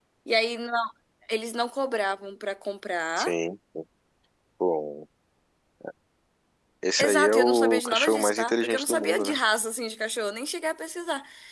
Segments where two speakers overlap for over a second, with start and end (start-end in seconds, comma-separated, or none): 7.0-9.4